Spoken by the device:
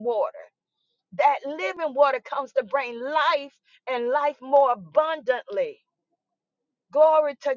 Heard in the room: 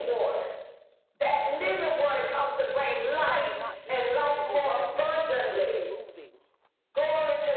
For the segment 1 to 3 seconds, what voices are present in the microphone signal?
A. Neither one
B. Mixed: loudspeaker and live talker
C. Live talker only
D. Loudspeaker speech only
D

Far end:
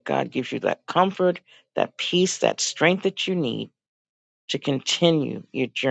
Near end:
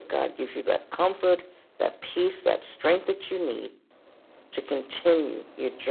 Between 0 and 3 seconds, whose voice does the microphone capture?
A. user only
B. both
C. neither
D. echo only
D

